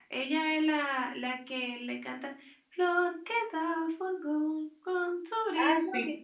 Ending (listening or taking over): taking over